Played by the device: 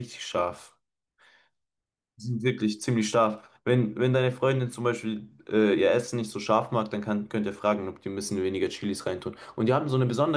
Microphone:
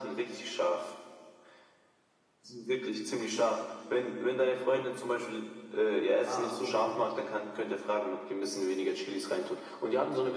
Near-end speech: present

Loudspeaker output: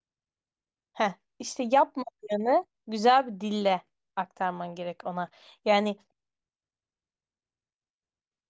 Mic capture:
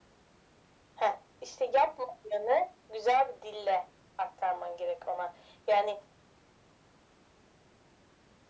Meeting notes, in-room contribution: none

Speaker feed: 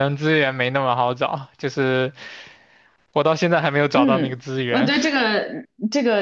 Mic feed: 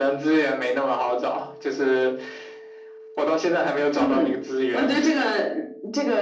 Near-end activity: none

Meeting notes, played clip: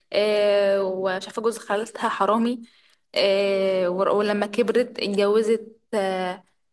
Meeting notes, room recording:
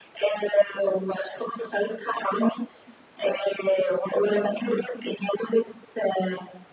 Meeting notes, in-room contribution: none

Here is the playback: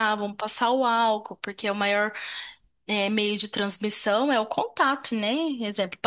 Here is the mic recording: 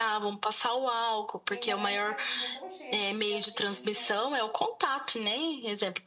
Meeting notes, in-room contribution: present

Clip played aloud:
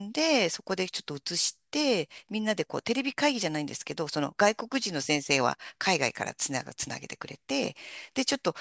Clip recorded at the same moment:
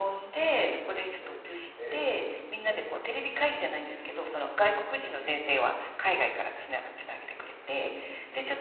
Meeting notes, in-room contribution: present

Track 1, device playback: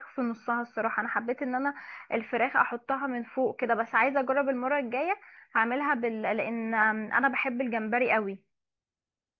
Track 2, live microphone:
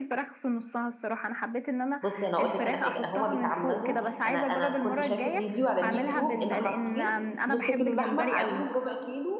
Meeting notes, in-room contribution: present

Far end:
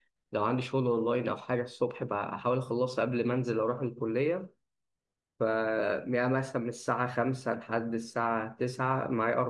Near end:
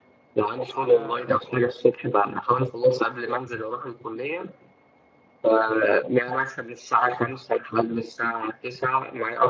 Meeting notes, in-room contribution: present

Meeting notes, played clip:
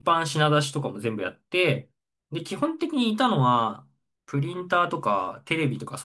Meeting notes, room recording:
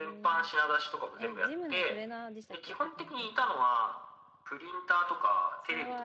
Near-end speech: present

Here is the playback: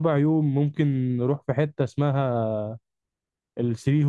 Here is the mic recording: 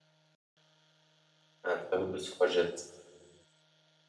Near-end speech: present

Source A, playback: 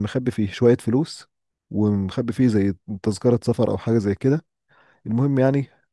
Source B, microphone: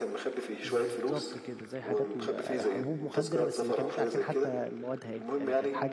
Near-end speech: present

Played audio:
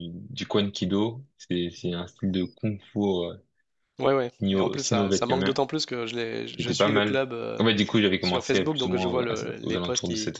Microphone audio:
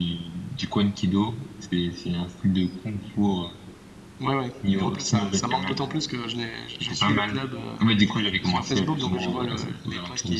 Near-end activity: none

